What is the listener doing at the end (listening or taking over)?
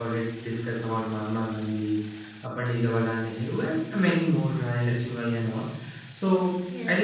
listening